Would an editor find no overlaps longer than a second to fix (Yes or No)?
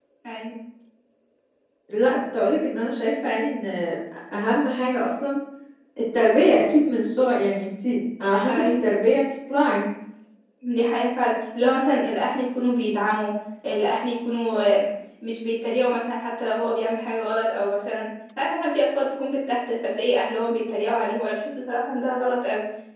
Yes